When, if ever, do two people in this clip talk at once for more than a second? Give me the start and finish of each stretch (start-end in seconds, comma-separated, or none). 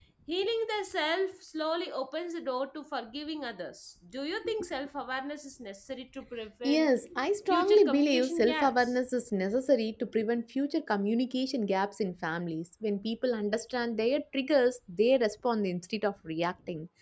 7.5-8.9